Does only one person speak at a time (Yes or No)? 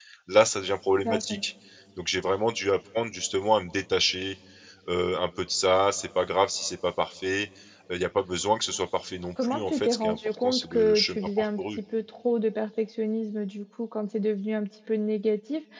No